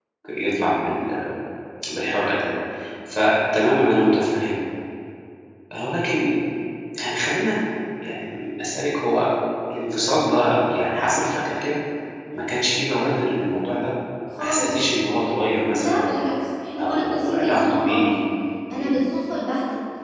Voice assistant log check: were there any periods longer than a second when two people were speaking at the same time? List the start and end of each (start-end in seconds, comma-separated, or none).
16.8-18.0